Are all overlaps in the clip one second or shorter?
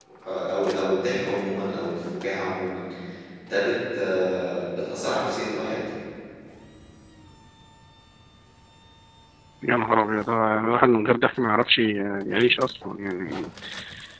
Yes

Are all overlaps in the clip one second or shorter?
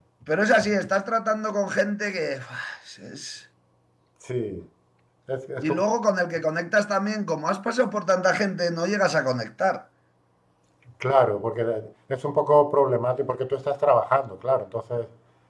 Yes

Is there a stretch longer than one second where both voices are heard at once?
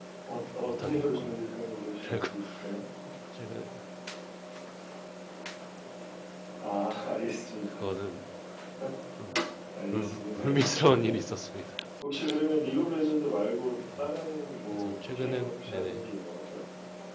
Yes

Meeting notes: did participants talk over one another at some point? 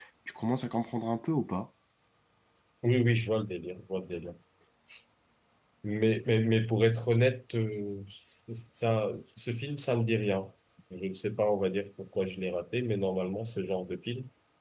No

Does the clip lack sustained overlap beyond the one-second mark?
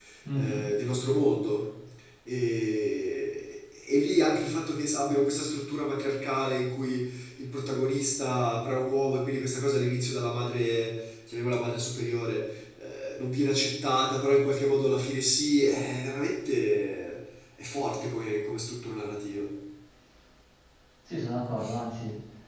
Yes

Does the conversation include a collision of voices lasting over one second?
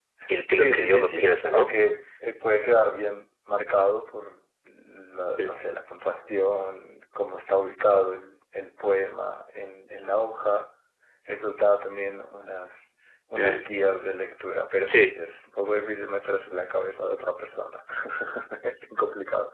Yes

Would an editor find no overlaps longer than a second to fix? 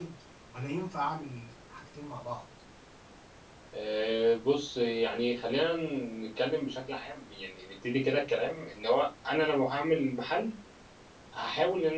Yes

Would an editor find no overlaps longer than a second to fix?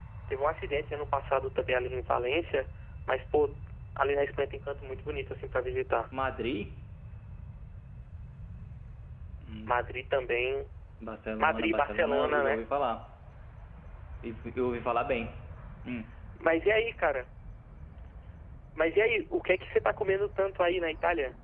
No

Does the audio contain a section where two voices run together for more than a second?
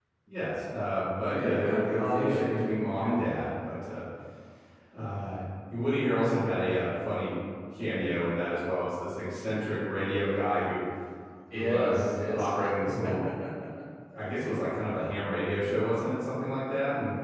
Yes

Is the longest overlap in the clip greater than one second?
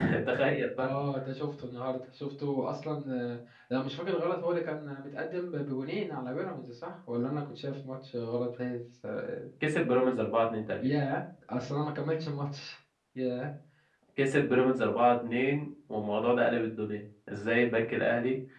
No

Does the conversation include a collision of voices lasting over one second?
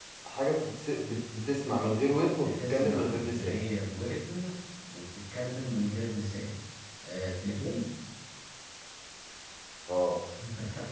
Yes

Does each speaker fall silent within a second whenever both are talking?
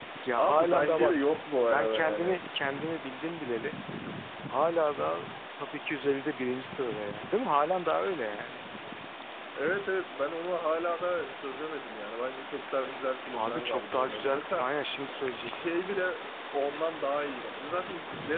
No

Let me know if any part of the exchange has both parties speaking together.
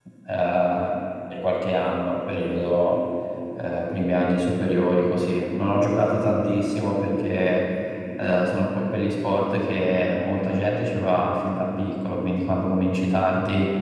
No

